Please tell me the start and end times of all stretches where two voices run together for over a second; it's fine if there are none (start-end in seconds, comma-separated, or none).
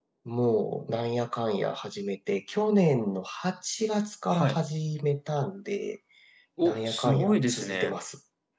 6.6-8.0